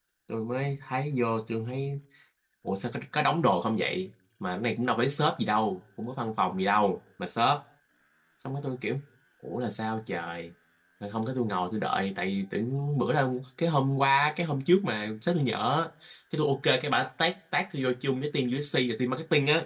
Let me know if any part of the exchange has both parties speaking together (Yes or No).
No